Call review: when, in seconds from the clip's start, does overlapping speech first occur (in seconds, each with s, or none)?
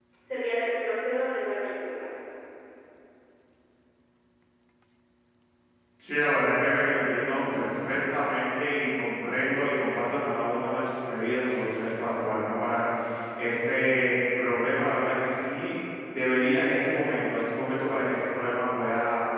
none